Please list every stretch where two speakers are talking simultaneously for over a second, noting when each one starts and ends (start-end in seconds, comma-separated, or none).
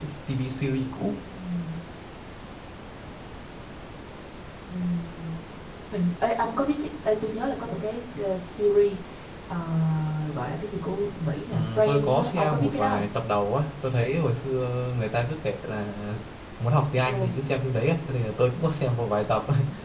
11.5-13.0